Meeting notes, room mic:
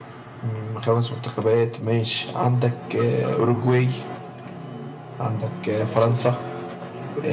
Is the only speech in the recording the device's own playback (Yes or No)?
No